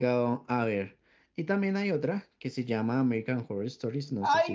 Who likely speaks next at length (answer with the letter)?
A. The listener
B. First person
A